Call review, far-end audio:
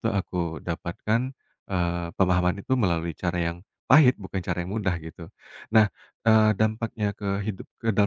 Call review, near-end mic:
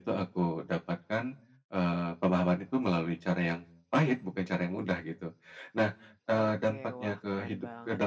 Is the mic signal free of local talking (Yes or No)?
No